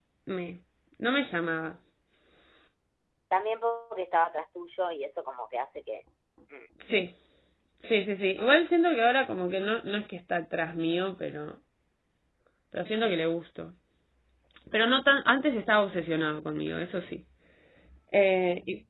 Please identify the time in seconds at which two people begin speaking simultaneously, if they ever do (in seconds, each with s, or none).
none